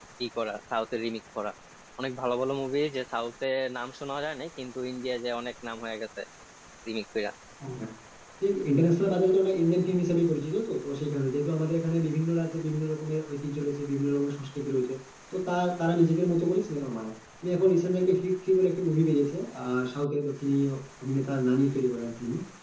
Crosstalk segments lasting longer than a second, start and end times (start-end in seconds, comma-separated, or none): none